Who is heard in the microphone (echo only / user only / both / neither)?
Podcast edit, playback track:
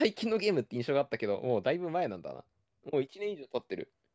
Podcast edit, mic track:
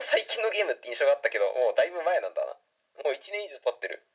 echo only